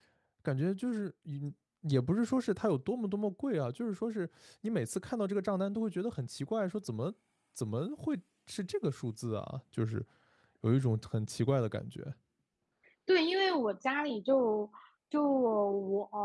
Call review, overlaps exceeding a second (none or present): none